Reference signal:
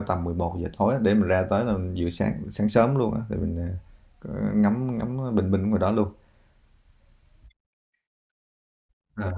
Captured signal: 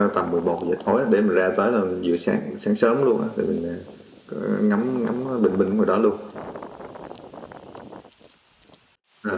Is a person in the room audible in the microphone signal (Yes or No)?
No